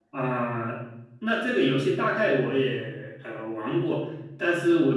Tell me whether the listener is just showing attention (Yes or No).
Yes